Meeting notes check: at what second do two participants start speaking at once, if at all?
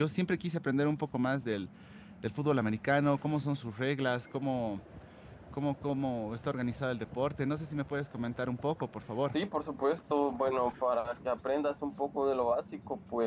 none

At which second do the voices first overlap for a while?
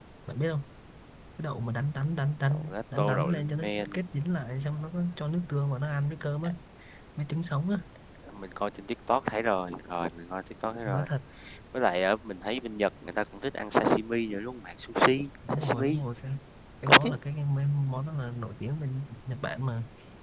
2.5 s

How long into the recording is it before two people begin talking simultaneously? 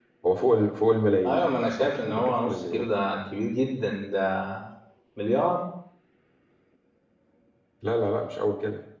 1.3 s

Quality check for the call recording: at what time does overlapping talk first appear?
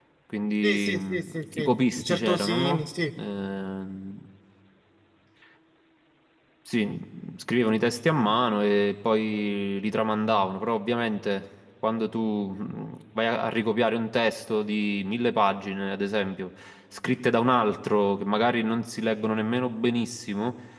0.6 s

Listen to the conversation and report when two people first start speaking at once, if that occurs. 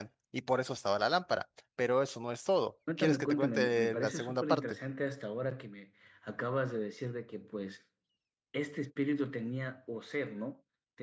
2.9 s

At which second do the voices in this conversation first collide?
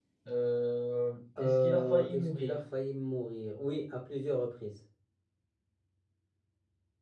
1.4 s

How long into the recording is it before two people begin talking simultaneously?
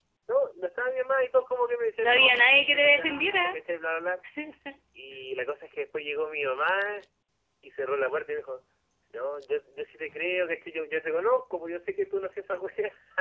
2.0 s

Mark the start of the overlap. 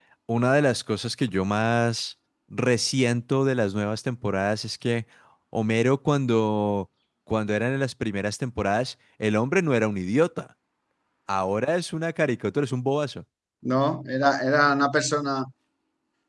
none

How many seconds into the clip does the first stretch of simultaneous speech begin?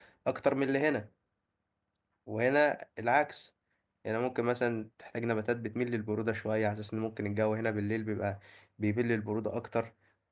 none

